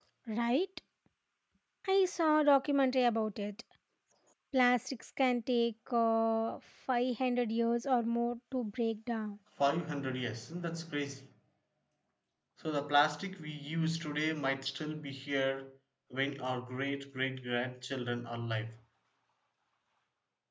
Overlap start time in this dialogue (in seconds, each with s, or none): none